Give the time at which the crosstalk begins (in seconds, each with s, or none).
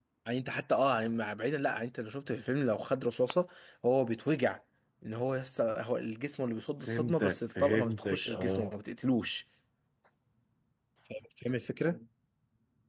6.9 s